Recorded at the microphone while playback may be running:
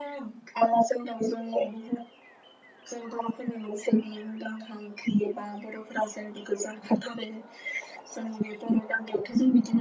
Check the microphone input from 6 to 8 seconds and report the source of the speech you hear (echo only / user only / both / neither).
echo only